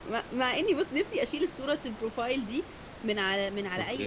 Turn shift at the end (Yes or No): No